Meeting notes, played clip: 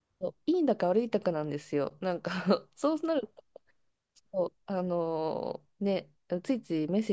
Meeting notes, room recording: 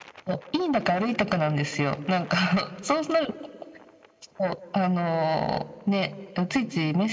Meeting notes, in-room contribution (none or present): none